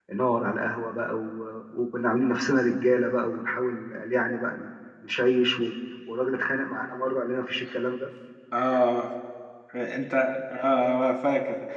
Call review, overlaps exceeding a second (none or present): none